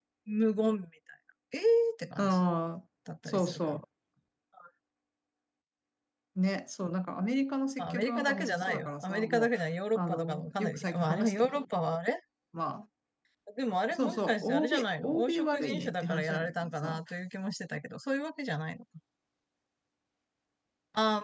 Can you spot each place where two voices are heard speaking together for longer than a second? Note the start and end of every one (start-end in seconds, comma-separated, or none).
7.8-9.5, 9.9-11.5, 13.9-17.0